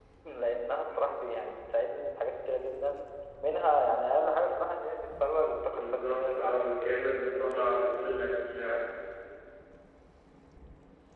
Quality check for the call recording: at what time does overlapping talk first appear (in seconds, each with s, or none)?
5.7 s